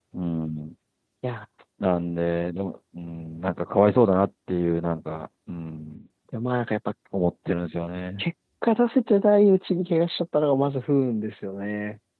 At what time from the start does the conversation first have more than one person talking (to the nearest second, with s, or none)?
none